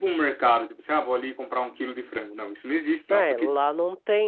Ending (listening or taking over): taking over